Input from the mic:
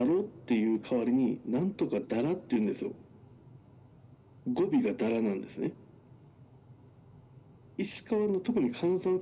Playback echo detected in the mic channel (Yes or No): Yes